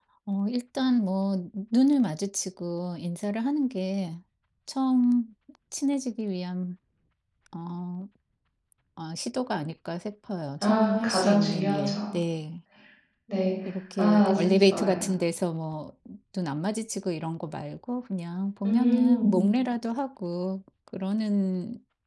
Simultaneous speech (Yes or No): Yes